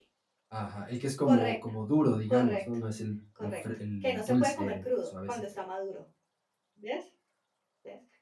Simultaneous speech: Yes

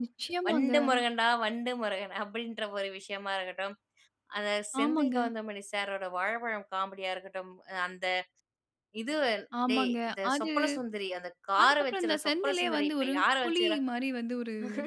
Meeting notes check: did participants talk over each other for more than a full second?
Yes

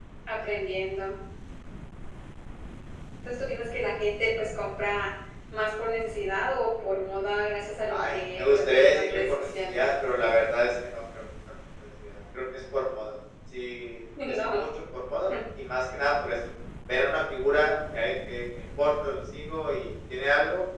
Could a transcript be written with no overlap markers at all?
No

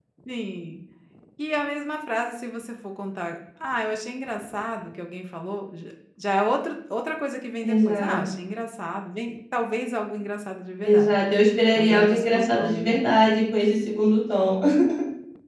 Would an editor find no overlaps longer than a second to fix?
No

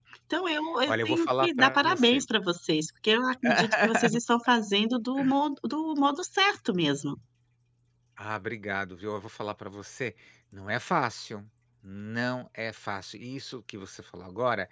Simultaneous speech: Yes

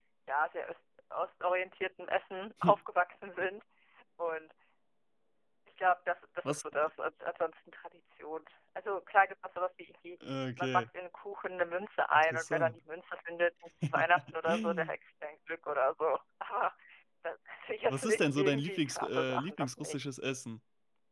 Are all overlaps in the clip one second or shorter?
No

